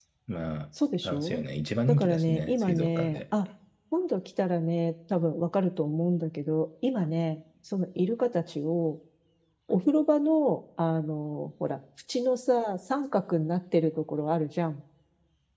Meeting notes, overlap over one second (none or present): present